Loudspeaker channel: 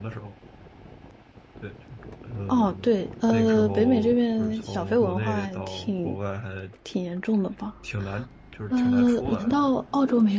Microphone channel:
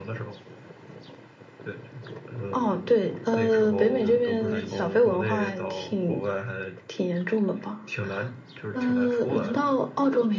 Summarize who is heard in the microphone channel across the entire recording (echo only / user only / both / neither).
both